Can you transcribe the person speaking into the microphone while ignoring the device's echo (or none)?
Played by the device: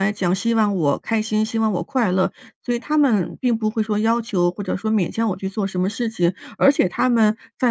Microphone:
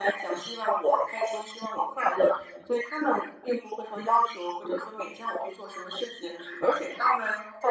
none